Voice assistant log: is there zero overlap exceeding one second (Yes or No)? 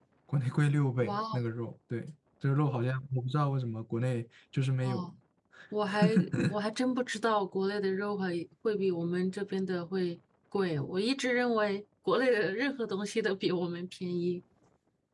Yes